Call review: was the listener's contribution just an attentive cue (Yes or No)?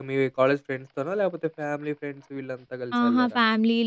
No